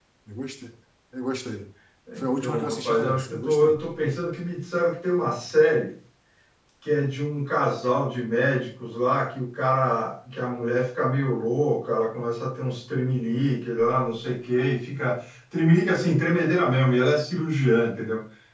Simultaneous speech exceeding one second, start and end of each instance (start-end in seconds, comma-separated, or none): 2.2-3.8